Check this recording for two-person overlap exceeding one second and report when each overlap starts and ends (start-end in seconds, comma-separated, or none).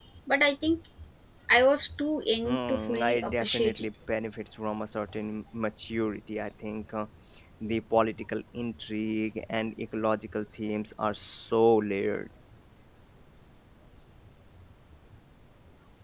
2.5-3.9